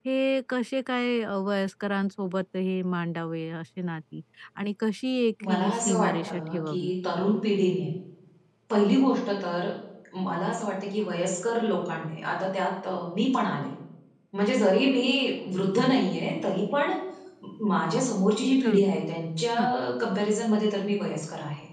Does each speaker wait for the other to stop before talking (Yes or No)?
No